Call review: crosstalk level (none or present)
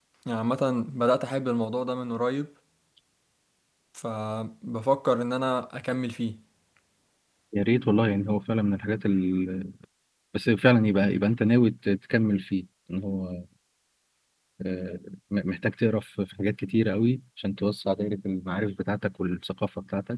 none